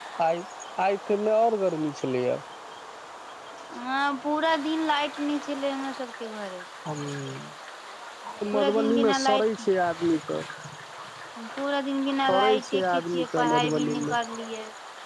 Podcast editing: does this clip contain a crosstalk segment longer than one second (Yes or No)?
Yes